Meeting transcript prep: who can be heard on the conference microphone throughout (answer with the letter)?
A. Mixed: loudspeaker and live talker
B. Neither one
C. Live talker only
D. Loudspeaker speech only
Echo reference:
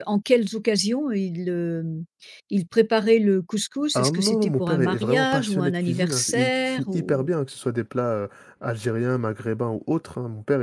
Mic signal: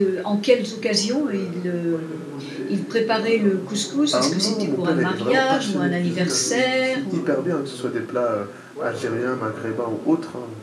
A